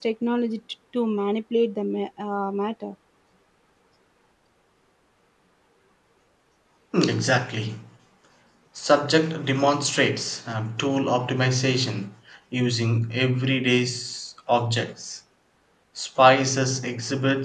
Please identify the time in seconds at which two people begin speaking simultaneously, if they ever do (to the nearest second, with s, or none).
none